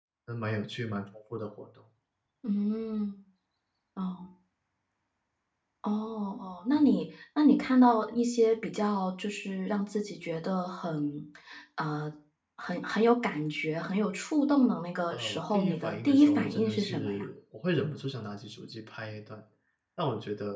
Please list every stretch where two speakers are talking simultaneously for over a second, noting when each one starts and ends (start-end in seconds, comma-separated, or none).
15.1-17.2